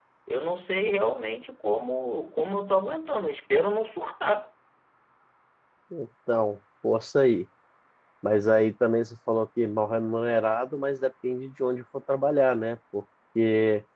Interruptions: none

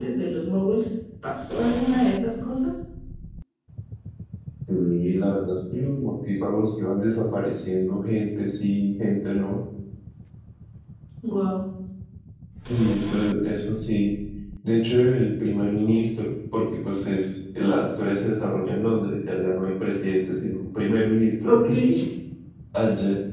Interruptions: none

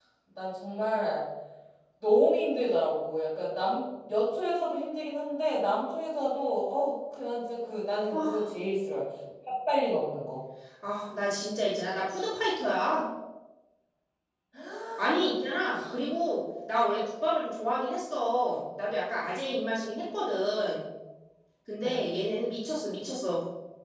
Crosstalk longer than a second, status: none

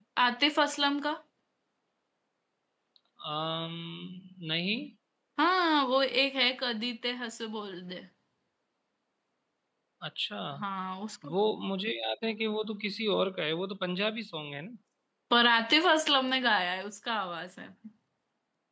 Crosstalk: none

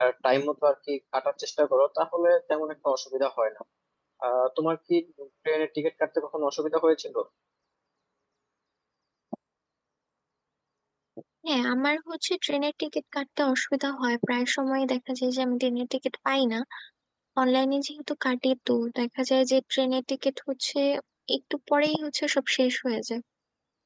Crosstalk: none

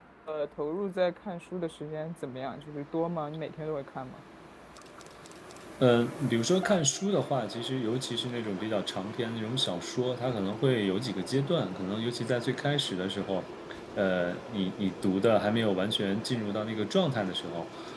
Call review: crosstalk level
none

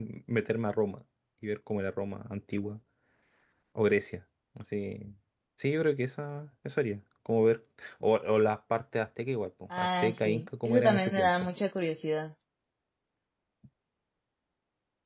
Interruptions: present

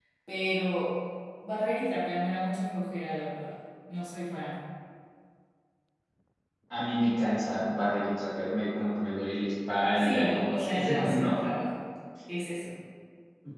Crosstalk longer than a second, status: present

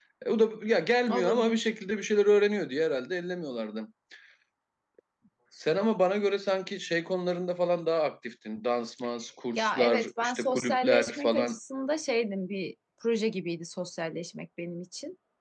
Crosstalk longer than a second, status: present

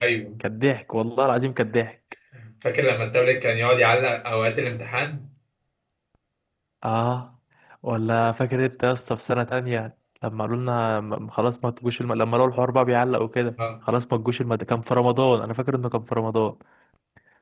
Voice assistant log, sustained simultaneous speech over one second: none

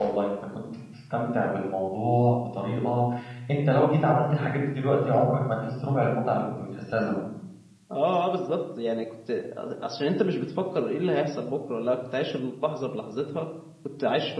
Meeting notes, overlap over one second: none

